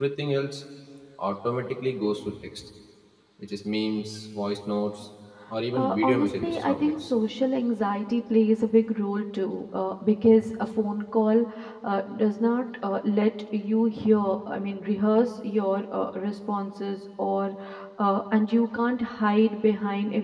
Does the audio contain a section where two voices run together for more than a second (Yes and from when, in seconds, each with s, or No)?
Yes, from 5.7 s